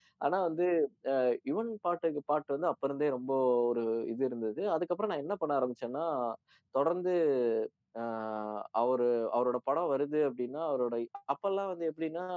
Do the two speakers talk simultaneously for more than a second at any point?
No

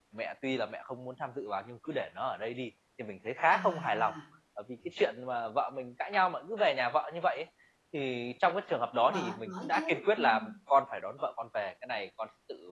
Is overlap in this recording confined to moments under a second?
No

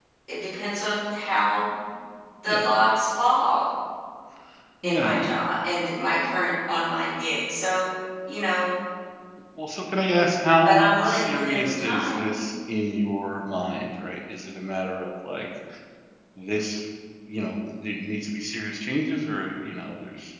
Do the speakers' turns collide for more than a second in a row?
Yes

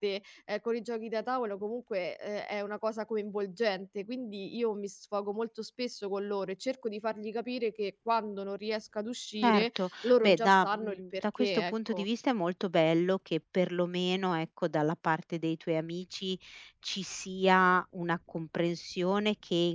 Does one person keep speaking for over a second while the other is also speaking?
Yes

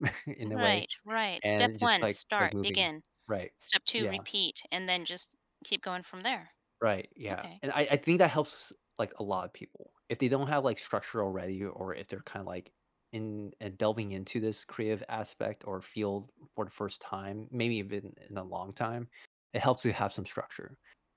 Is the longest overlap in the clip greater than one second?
Yes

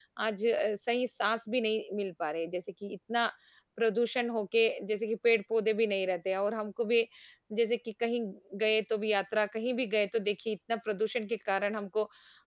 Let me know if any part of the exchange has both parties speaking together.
No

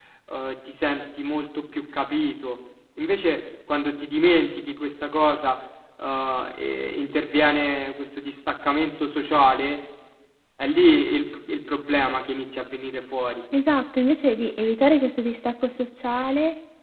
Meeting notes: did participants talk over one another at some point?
No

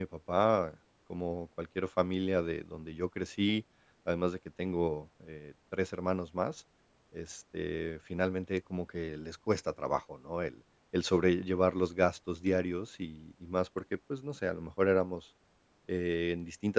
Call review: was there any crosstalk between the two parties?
No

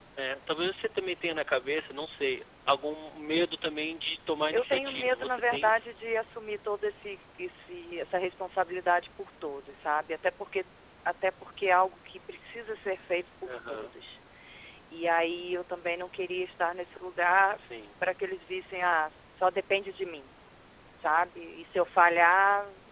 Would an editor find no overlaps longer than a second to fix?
No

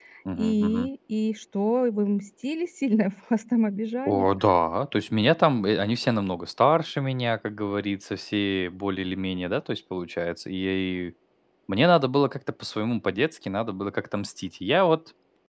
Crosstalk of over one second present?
No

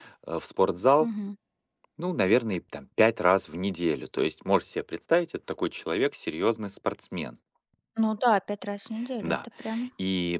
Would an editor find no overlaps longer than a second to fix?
Yes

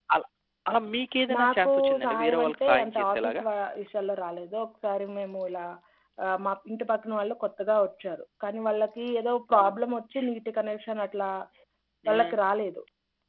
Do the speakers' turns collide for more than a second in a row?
Yes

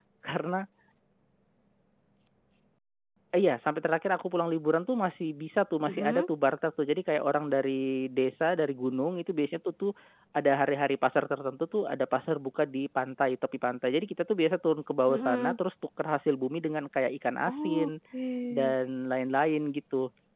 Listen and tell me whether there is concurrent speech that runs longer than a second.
No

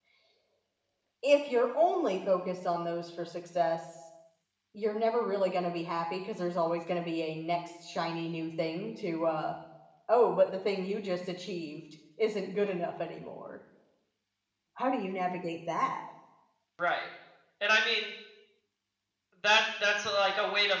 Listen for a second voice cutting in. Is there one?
No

